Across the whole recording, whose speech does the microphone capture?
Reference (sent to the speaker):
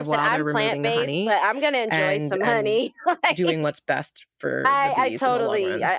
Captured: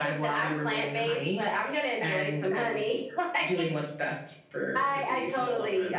echo only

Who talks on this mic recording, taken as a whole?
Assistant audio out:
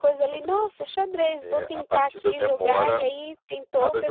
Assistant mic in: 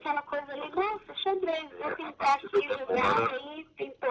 echo only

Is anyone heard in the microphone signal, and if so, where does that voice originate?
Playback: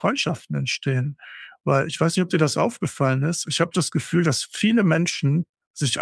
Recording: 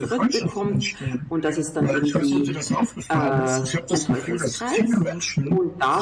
both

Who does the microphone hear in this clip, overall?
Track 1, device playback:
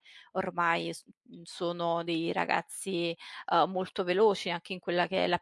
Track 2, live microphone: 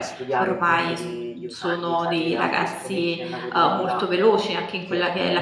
both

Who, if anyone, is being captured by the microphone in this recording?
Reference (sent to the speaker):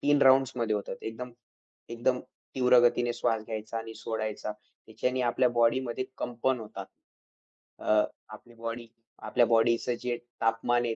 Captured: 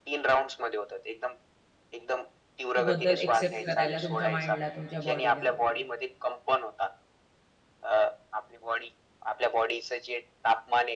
both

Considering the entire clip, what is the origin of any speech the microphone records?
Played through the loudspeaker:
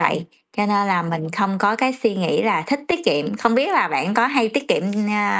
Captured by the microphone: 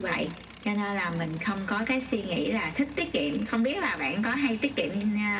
echo only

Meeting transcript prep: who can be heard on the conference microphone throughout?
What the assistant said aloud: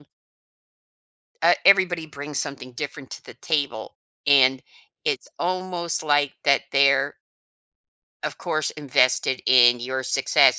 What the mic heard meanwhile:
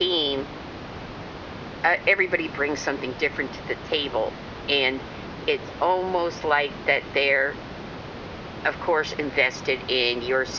echo only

